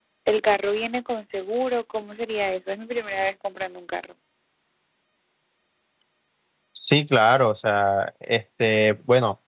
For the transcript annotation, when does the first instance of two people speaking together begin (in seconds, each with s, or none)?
none